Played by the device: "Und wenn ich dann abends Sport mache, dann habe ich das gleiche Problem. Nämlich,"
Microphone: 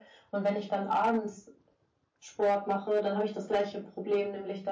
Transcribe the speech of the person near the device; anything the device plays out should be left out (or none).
none